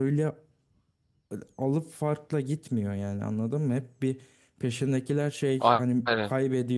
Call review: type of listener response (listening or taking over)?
listening